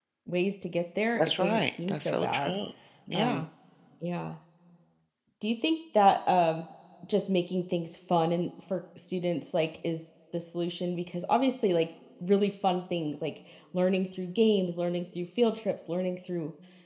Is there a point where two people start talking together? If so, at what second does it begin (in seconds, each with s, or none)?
1.2 s